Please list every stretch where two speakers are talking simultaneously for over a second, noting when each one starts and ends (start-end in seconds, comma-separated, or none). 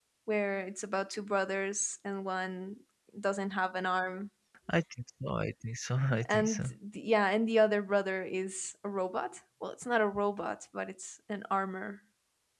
none